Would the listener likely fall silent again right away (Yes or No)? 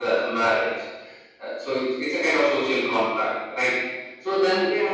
Yes